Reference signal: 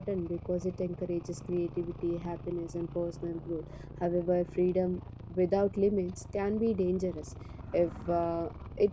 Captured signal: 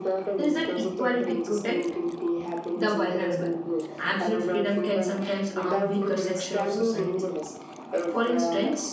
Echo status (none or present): present